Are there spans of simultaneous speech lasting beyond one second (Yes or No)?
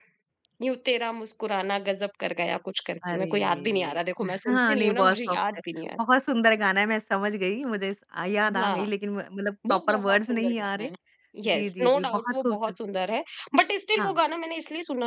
Yes